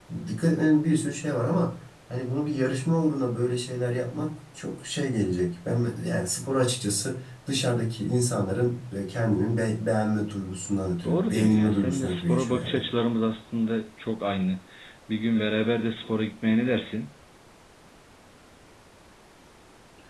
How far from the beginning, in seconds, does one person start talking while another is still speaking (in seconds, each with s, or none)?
11.0 s